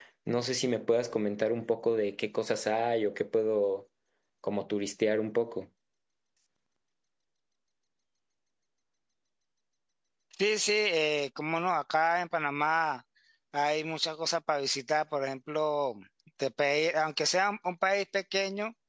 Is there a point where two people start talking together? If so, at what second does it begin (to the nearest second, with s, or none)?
none